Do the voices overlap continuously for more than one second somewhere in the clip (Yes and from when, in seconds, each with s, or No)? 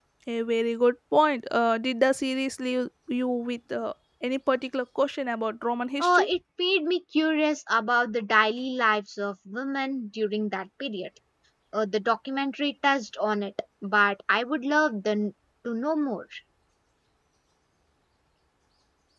No